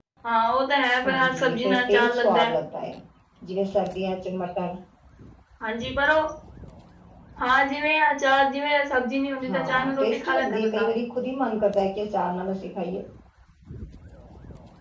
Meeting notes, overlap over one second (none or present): present